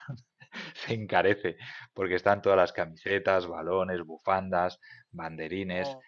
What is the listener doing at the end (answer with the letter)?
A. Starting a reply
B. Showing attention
B